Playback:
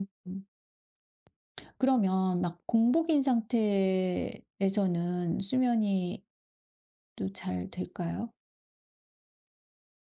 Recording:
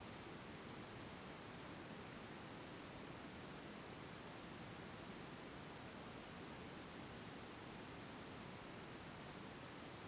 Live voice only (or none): none